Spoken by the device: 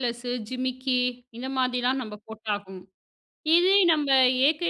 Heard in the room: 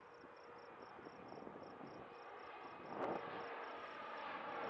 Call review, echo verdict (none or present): none